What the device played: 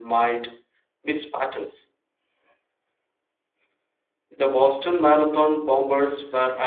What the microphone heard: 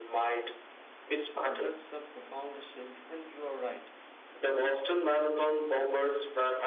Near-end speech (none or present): present